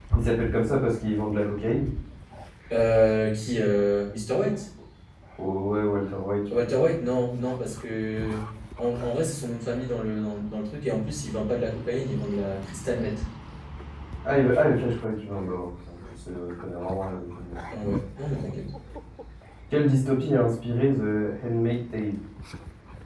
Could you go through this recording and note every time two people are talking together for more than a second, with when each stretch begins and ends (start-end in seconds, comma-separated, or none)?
none